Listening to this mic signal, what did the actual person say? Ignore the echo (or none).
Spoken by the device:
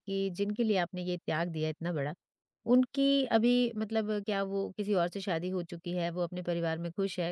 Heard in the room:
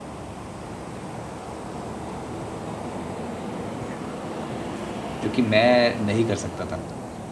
जो कि मैं नहीं कर सकता था।